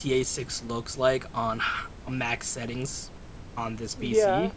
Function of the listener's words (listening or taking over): listening